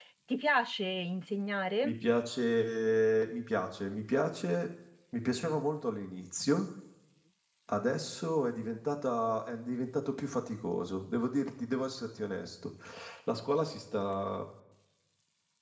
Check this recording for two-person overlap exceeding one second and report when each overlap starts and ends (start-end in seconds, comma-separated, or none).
none